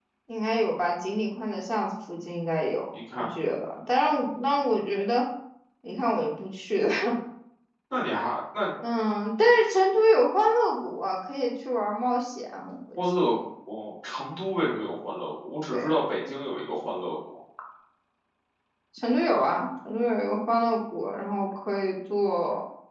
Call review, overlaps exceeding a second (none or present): none